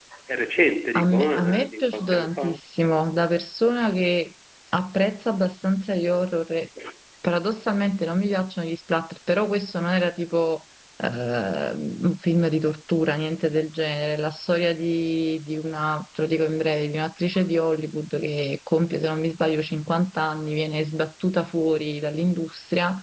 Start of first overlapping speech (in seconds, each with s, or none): 1.0 s